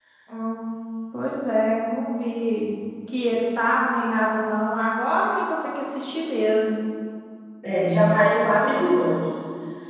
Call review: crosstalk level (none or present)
none